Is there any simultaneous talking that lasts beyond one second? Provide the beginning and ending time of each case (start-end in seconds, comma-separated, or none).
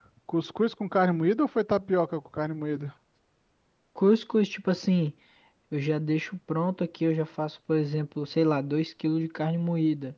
none